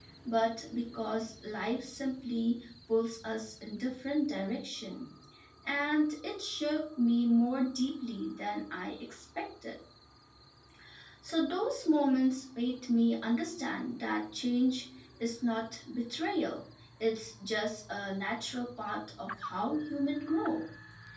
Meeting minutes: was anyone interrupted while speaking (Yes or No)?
No